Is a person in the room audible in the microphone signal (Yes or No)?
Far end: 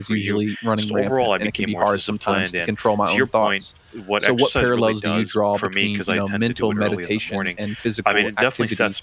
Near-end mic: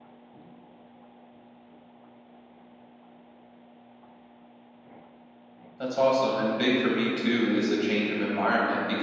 Yes